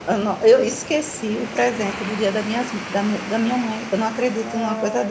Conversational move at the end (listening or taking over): taking over